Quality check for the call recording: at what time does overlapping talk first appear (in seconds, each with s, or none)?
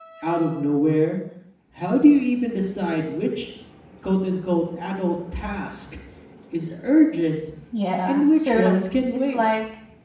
8.1 s